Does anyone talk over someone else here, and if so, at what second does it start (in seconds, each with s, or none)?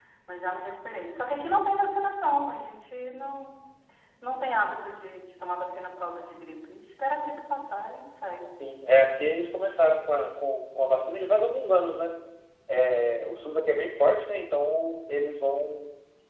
none